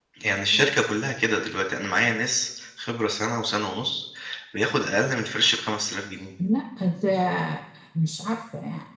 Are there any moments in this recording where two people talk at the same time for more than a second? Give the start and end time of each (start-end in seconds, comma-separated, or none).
none